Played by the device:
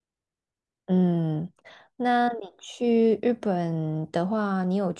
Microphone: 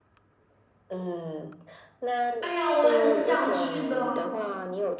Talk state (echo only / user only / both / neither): both